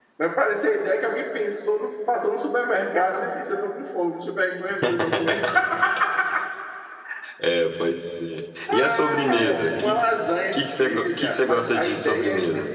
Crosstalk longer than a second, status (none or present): present